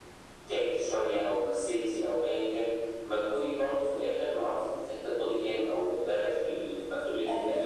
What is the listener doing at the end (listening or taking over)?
listening